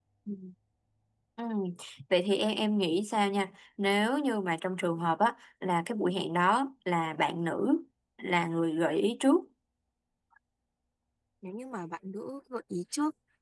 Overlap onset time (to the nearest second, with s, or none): none